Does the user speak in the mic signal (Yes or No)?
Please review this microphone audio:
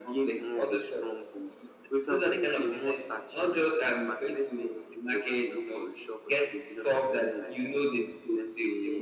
No